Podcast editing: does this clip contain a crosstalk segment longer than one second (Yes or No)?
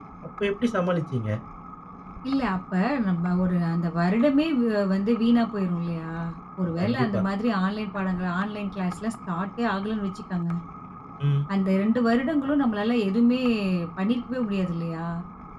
No